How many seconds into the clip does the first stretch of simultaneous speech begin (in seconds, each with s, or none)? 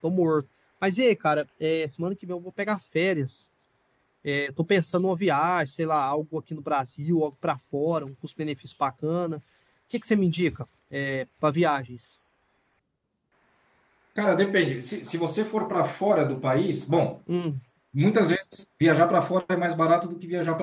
none